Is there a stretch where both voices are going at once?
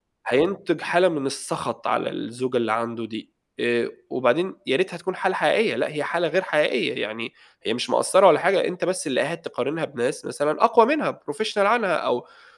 No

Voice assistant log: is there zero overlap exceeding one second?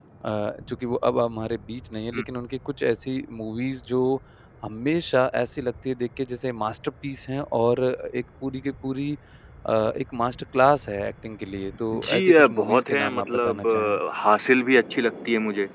No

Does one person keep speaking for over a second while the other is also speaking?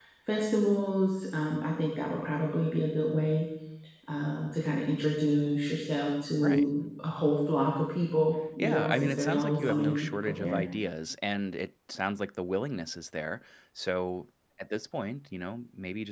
Yes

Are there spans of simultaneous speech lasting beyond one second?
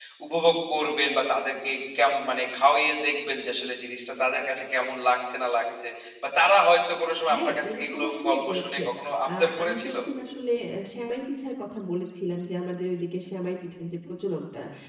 Yes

